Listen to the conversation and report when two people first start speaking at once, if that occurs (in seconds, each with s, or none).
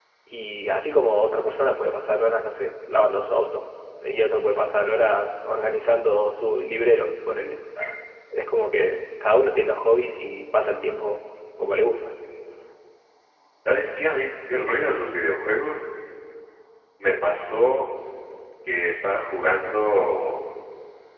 none